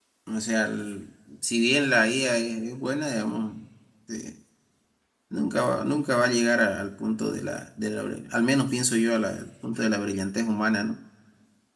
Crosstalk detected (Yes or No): No